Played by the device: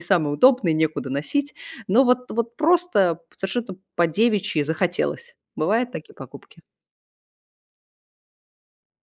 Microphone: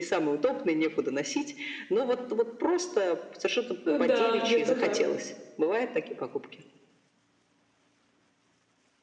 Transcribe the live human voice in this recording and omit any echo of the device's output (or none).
Да, где-то так.